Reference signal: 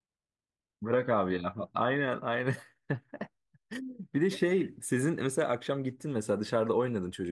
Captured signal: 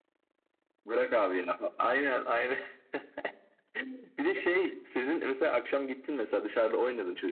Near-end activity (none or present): none